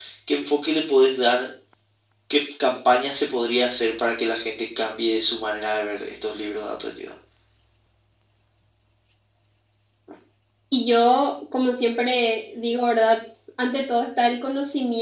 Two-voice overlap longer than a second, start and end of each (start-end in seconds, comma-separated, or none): none